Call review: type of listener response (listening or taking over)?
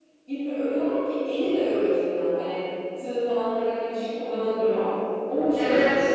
taking over